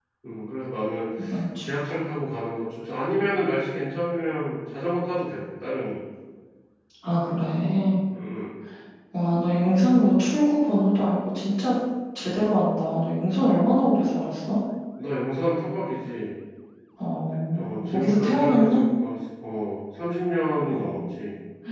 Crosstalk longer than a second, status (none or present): present